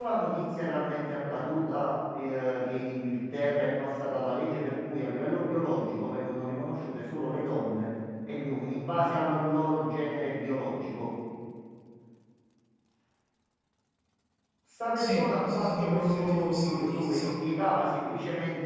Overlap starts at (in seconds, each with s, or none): 15.0 s